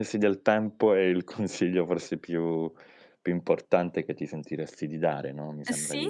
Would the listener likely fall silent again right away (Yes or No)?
No